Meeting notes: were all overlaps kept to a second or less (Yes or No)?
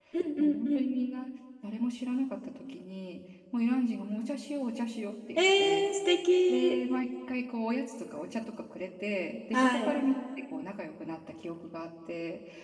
Yes